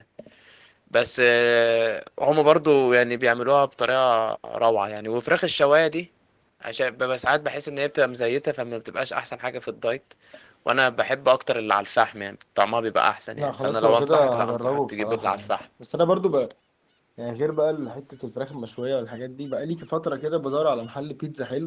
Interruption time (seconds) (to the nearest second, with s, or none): 13 s